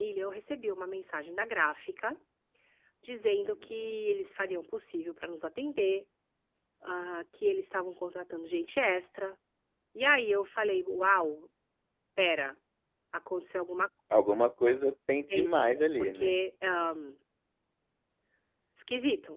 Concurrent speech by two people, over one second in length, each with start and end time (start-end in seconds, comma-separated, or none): none